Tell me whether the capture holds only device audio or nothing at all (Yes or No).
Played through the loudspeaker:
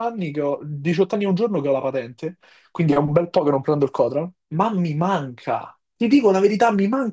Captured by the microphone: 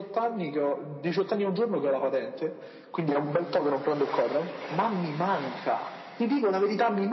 Yes